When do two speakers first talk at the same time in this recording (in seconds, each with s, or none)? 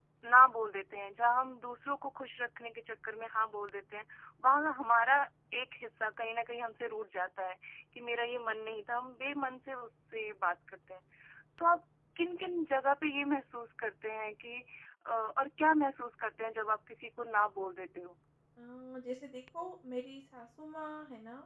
none